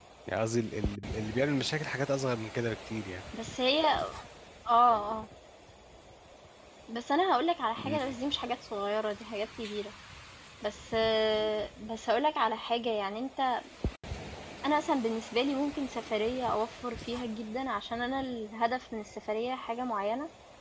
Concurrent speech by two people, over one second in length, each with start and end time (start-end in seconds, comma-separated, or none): none